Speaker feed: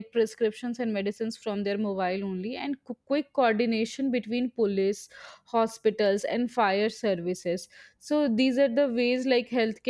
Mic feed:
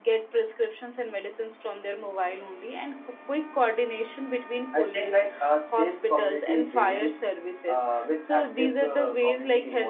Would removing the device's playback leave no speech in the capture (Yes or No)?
No